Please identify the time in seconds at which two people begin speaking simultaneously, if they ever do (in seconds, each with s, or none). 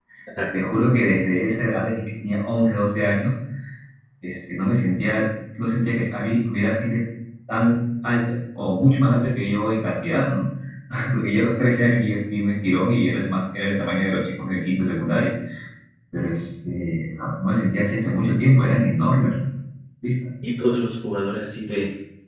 none